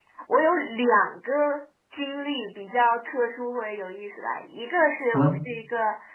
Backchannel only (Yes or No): Yes